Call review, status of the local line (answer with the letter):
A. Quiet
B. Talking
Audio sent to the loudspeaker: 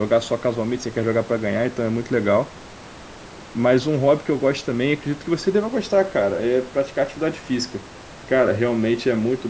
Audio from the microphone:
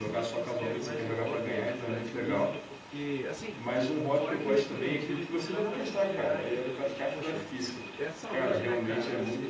B